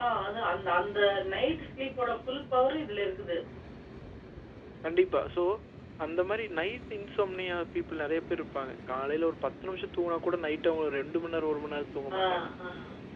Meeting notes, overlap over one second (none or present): none